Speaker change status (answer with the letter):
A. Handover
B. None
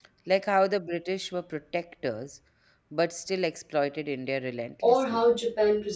A